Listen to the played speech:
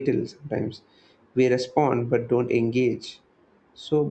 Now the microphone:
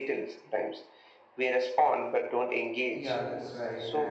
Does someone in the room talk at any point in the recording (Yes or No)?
Yes